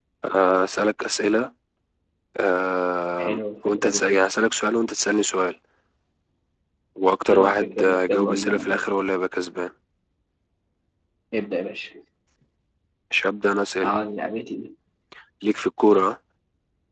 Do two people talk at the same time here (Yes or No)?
Yes